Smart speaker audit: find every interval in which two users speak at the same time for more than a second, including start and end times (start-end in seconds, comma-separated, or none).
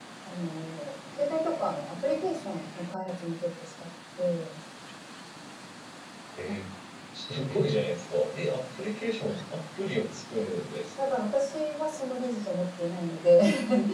none